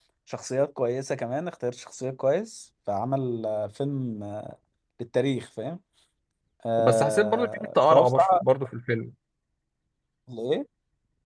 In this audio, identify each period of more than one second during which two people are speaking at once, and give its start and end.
6.8-8.4

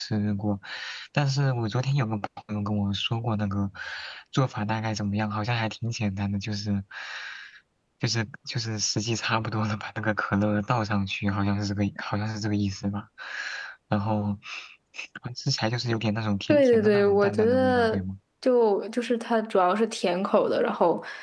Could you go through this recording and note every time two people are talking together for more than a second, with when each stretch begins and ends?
16.5-18.0

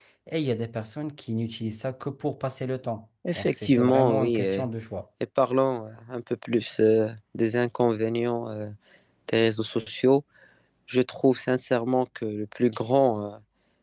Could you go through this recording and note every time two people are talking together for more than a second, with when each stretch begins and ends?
3.4-4.6

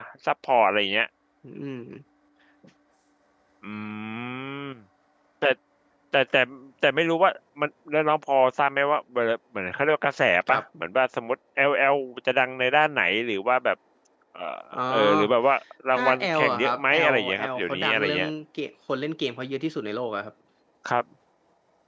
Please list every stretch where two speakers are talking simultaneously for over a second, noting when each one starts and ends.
15.9-18.3

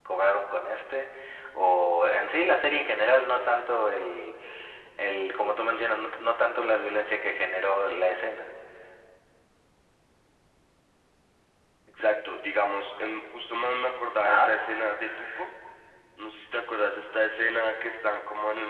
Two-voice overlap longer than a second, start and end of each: none

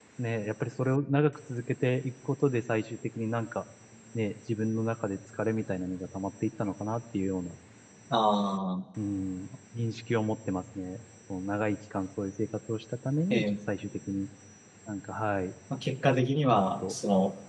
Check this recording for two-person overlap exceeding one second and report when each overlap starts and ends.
none

